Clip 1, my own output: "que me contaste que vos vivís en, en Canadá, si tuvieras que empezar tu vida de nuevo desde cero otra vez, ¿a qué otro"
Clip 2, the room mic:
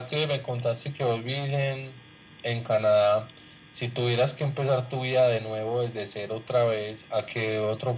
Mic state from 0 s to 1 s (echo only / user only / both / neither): echo only